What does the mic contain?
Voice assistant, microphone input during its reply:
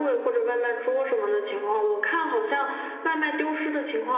echo only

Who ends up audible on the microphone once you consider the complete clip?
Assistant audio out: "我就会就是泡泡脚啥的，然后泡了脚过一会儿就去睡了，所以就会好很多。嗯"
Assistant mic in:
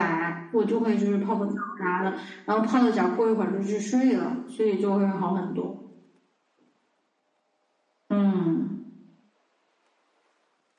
echo only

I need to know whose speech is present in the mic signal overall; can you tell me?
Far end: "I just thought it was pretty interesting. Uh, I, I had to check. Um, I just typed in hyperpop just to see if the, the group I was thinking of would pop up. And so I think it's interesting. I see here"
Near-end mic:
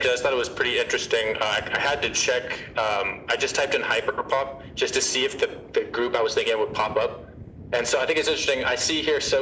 echo only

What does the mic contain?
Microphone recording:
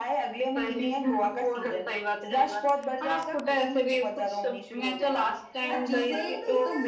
both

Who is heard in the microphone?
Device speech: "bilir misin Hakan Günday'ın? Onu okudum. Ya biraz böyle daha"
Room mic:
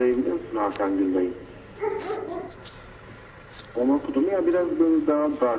echo only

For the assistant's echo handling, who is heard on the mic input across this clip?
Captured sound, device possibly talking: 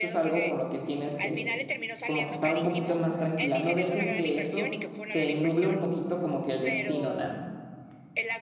both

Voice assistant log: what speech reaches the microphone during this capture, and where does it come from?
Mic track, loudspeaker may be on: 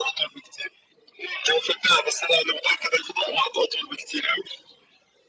echo only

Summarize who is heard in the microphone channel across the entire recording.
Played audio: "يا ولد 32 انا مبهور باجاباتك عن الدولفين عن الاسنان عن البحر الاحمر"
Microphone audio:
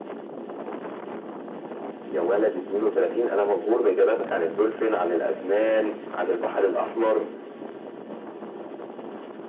echo only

